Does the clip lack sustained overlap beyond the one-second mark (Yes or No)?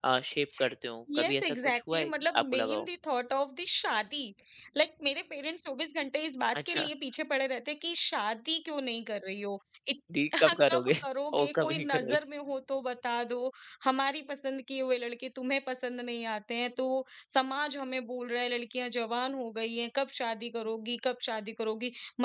No